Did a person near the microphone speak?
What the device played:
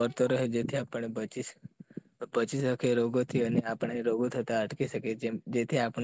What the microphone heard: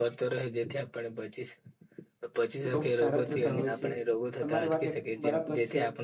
Yes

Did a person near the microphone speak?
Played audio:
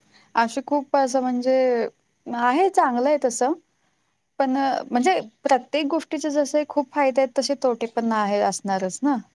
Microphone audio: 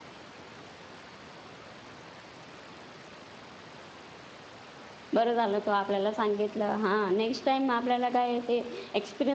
Yes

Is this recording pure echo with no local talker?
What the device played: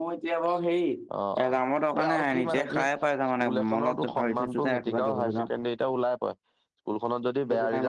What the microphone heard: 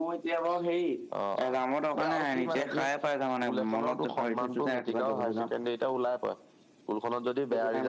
Yes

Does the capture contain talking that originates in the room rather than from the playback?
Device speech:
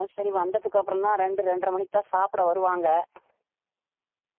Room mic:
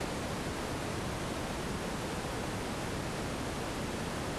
No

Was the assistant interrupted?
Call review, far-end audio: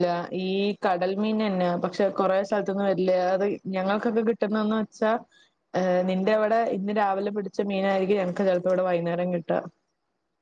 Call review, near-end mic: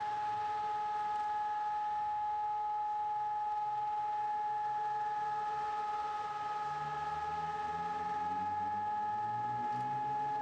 No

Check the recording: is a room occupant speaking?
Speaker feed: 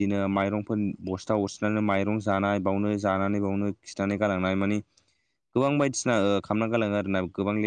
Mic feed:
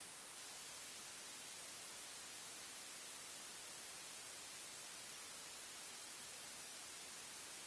No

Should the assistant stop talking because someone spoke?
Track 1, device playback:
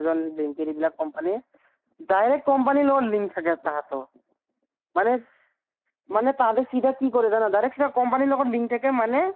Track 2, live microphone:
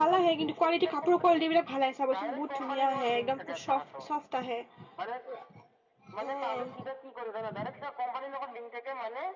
Yes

